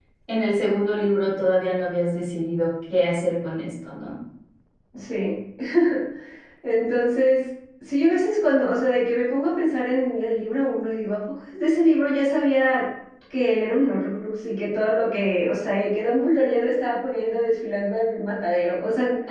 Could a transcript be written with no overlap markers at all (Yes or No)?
Yes